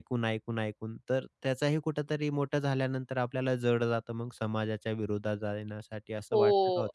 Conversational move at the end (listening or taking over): taking over